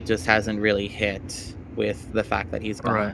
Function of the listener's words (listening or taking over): taking over